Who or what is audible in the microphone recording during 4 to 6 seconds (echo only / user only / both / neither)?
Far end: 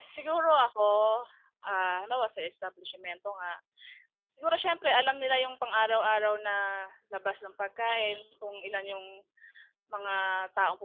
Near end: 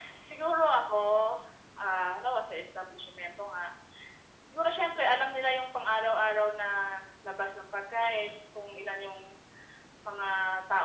echo only